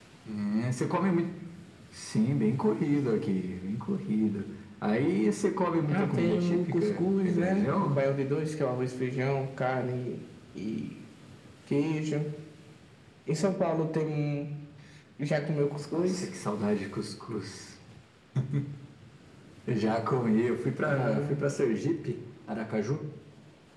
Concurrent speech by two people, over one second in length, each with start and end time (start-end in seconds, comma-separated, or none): 5.9-8.0